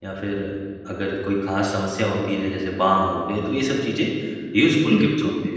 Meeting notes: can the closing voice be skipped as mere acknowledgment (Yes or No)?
Yes